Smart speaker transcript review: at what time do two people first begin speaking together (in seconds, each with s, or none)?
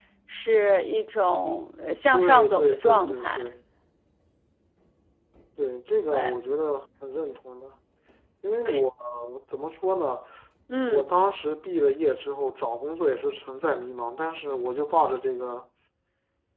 2.1 s